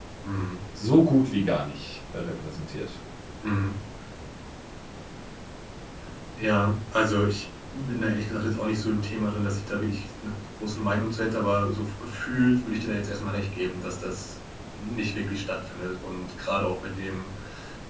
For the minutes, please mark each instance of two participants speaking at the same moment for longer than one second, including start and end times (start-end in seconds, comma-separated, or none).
none